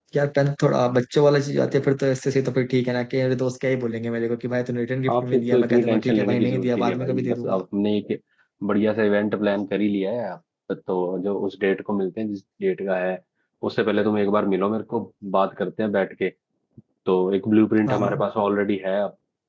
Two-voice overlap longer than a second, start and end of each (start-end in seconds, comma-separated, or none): 5.1-7.6